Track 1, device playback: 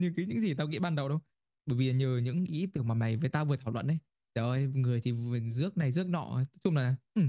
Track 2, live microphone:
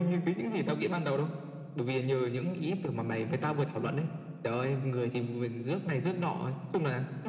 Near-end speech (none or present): none